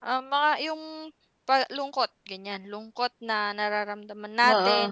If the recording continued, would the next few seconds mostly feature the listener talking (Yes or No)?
No